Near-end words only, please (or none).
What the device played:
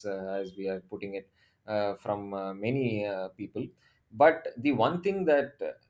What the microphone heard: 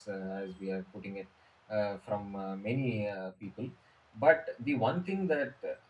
none